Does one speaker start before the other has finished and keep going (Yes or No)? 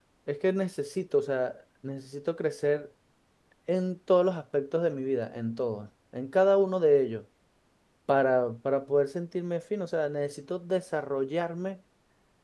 No